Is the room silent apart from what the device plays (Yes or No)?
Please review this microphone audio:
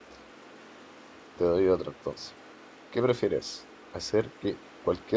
No